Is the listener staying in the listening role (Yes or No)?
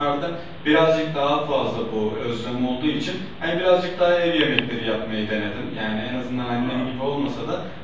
Yes